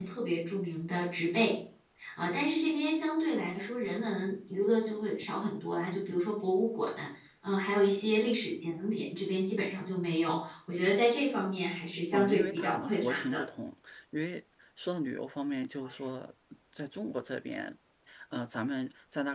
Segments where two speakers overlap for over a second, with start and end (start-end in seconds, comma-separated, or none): 12.1-13.4